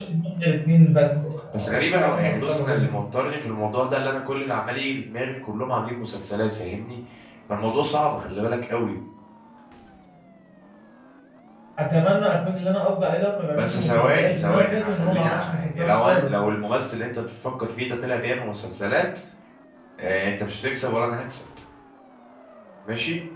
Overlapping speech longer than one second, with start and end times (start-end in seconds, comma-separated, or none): 1.5-2.9, 13.6-16.4